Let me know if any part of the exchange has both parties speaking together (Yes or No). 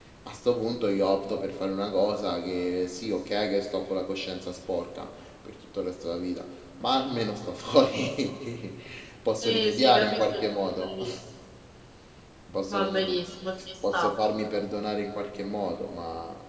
Yes